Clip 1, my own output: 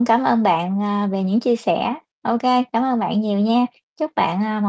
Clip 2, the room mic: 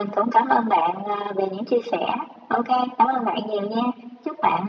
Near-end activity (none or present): none